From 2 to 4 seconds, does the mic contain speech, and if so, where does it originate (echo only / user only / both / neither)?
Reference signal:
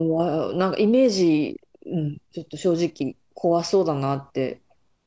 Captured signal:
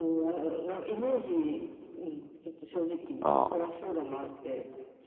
both